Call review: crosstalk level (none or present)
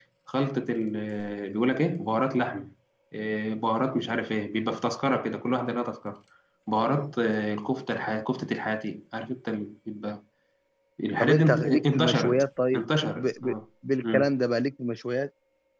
present